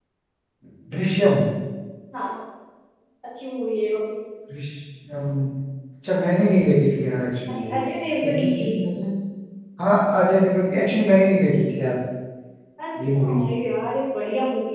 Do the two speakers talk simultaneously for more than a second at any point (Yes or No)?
No